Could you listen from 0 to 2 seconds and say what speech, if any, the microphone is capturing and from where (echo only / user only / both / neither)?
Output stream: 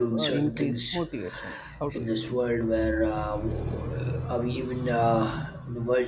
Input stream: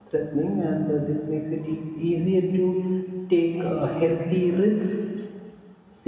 user only